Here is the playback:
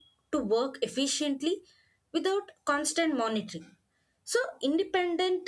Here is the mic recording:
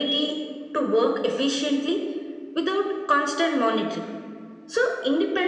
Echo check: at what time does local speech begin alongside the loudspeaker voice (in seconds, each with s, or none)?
none